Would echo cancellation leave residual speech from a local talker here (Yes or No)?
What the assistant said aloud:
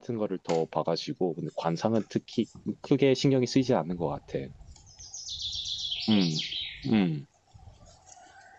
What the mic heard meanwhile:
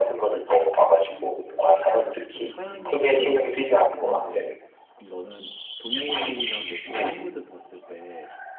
Yes